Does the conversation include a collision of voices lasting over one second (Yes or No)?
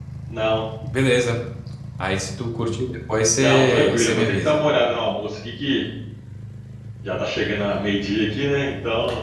Yes